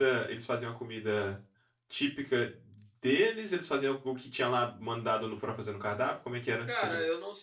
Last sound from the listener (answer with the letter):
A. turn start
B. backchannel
A